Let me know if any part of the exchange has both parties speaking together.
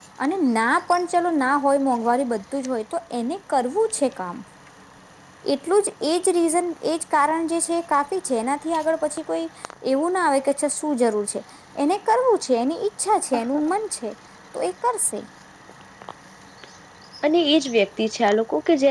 No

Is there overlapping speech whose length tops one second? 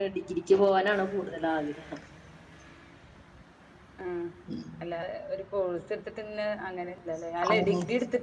No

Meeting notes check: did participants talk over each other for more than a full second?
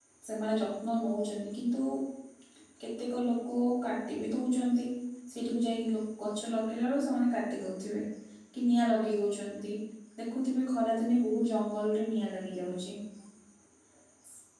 No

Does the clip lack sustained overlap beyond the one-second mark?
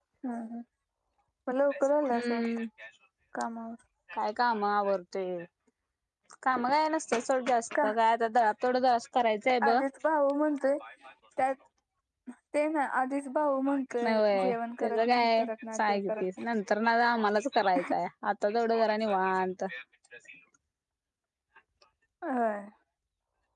No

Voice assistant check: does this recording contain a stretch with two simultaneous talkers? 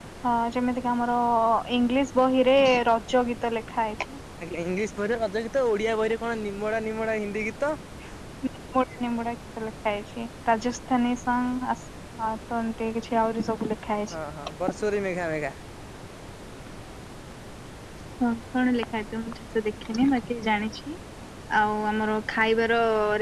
No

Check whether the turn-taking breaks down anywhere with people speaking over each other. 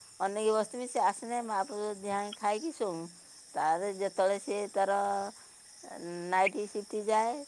No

